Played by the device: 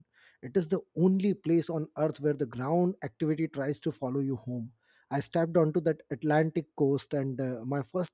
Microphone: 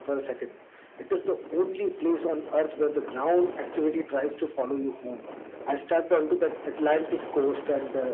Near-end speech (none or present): none